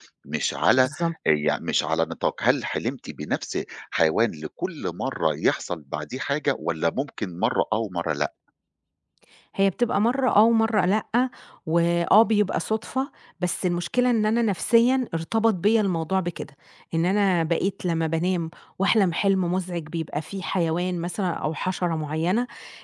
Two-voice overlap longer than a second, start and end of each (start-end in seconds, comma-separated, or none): none